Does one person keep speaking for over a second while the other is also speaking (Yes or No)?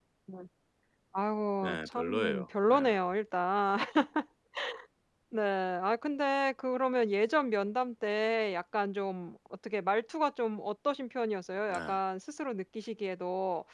Yes